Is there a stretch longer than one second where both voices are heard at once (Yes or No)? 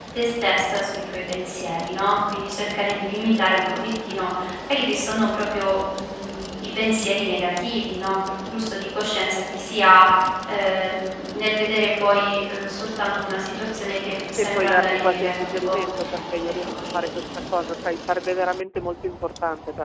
Yes